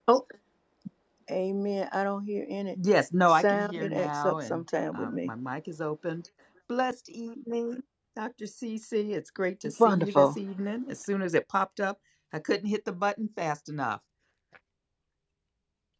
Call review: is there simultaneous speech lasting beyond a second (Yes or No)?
Yes